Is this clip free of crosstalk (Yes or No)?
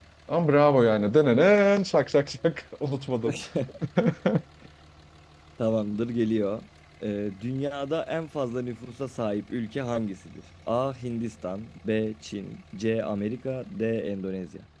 Yes